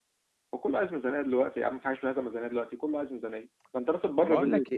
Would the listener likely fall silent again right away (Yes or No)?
No